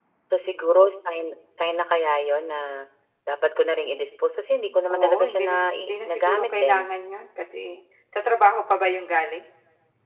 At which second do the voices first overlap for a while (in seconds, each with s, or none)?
4.9 s